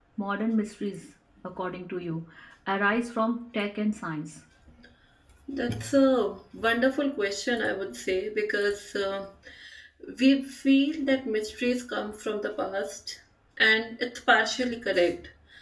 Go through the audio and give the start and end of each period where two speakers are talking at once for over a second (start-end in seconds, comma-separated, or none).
none